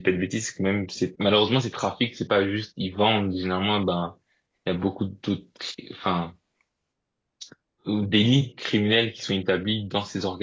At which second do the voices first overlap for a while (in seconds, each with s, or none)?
none